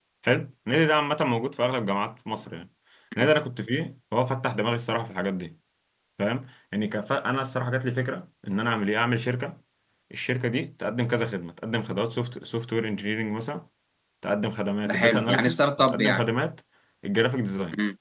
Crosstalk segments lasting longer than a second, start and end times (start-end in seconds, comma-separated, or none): 14.9-16.2